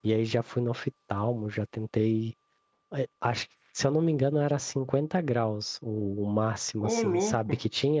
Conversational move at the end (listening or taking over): listening